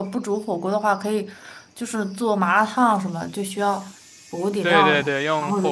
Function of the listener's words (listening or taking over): taking over